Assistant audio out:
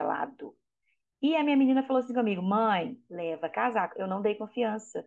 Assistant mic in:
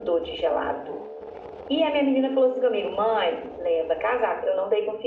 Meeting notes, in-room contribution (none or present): none